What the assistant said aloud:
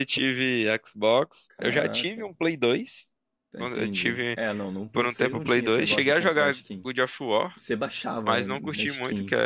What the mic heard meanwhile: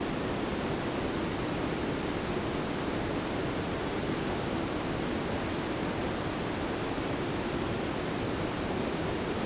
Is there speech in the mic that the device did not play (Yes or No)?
No